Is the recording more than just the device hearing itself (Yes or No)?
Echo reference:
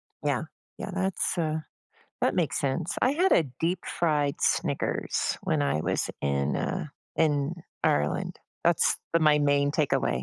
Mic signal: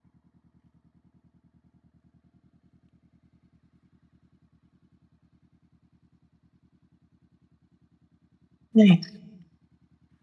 Yes